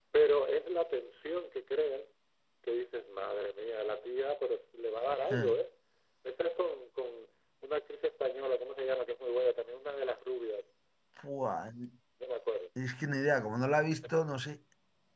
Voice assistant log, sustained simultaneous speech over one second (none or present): none